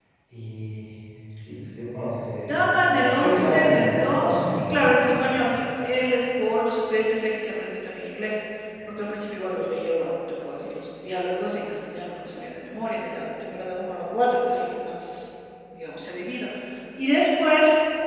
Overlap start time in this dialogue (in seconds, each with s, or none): 2.5 s